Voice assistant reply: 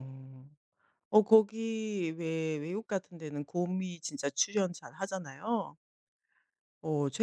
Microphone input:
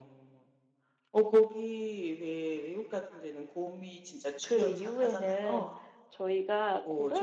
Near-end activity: present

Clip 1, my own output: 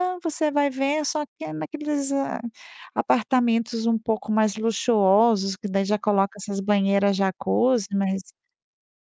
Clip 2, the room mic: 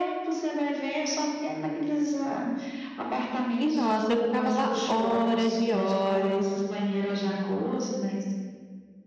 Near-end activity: present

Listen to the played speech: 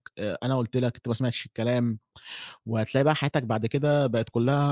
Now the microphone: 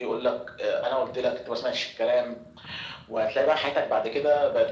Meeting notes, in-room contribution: none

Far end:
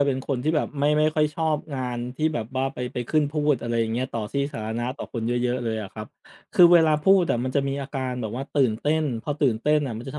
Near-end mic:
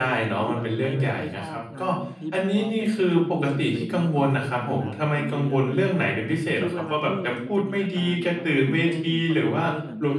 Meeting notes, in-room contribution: present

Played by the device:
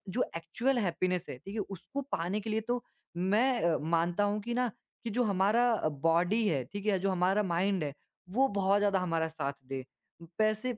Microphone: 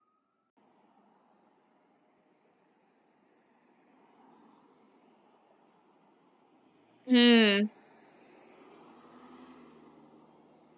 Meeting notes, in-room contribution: present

